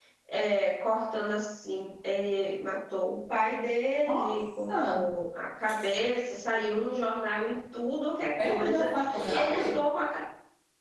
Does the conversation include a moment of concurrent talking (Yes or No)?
Yes